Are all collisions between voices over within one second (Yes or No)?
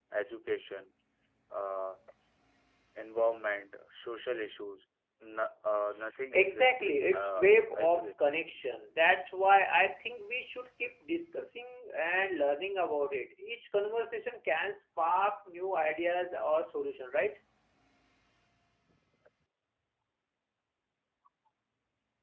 No